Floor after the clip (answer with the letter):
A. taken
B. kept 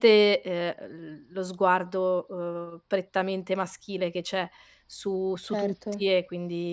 B